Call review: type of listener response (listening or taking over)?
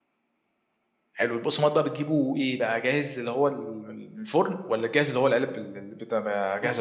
taking over